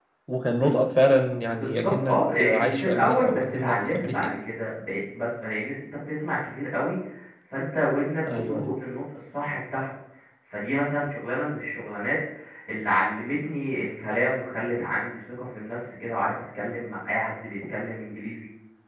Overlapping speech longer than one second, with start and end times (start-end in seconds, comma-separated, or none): 1.5-4.3